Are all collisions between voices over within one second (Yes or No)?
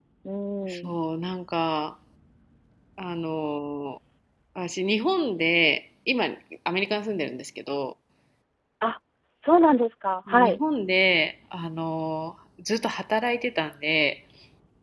Yes